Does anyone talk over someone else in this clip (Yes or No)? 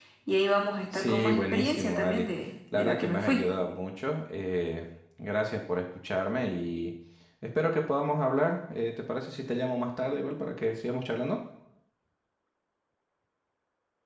Yes